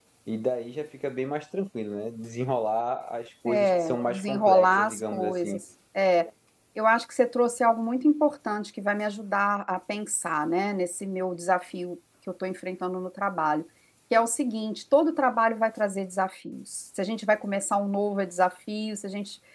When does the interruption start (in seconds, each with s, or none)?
3.5 s